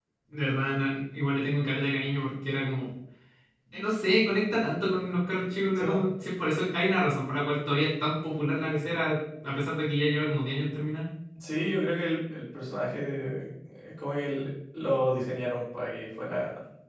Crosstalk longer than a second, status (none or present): none